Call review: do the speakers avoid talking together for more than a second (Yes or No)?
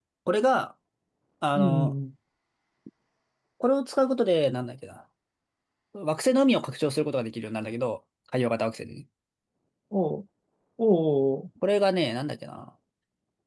Yes